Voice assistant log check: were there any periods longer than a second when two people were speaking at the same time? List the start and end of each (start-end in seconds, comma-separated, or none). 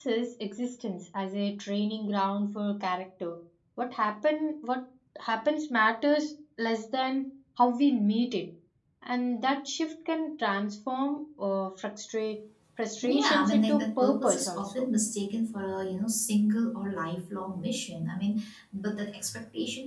13.0-14.8